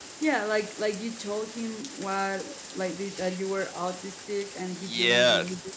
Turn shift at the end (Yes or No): Yes